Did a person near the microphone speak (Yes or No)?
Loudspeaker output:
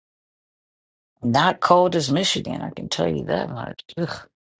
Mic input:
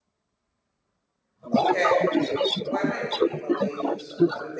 Yes